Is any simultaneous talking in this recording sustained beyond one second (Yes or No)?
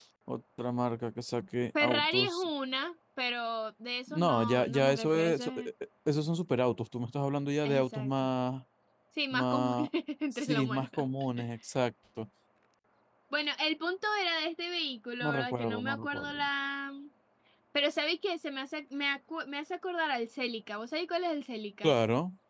Yes